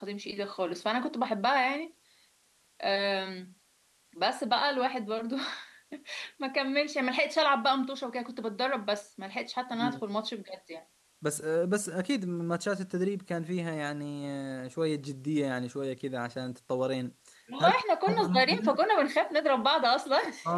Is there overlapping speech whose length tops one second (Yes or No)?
Yes